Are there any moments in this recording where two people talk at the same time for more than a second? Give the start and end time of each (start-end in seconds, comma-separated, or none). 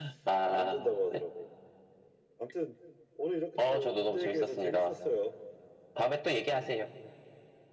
3.6-5.0